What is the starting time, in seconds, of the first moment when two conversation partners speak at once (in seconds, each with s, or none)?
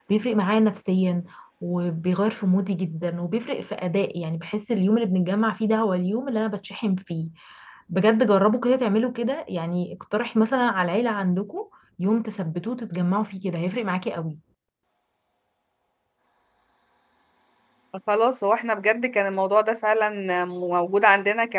none